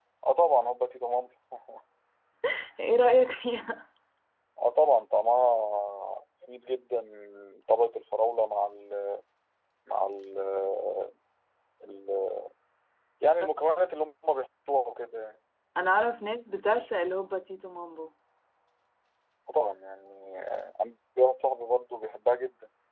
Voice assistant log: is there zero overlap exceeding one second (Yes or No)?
Yes